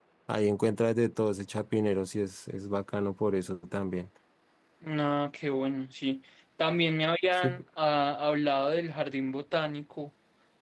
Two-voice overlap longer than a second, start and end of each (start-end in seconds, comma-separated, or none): none